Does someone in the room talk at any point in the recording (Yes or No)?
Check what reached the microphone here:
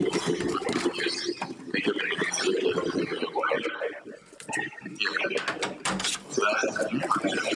No